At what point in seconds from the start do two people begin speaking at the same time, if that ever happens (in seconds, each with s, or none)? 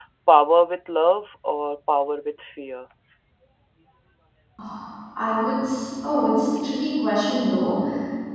none